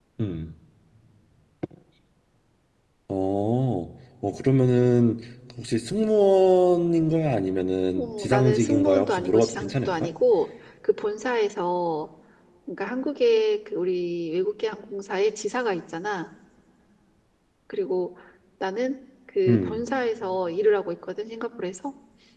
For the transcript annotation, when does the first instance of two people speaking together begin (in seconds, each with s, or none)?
8.0 s